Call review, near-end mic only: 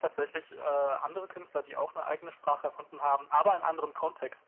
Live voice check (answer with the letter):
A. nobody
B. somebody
A